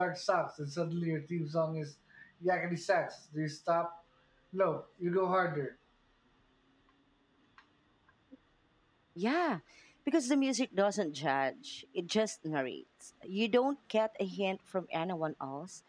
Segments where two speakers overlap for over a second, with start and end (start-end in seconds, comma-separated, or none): none